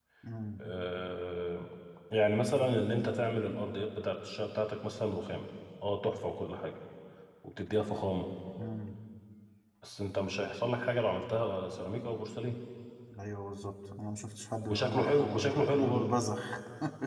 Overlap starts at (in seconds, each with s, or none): 14.6 s